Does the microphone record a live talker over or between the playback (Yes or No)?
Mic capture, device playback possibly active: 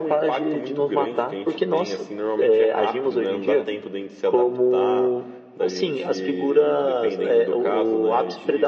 No